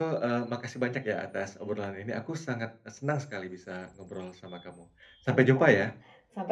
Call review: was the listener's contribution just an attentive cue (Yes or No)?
No